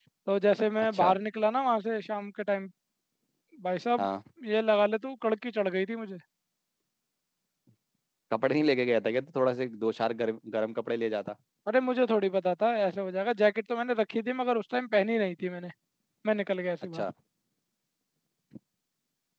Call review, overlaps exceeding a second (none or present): none